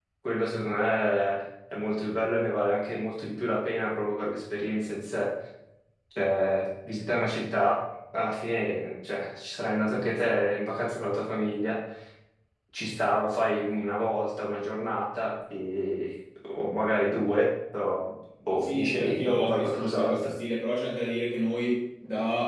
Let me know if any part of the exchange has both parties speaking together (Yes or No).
Yes